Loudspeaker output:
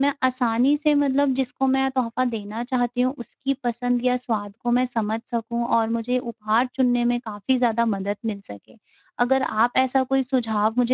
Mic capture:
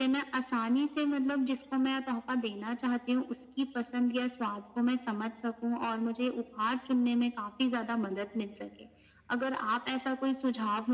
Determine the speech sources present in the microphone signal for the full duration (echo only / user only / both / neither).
echo only